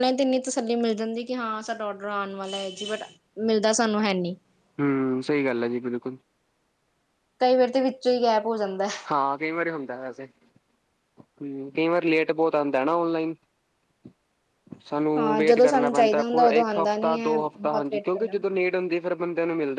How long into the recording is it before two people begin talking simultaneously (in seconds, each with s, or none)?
15.2 s